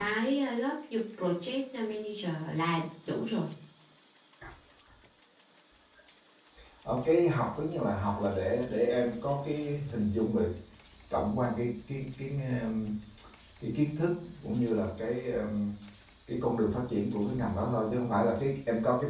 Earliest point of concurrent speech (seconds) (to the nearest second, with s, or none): none